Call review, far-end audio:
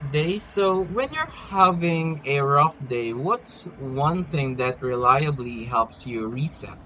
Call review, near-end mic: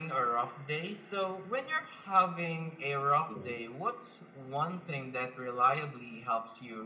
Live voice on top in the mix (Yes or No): No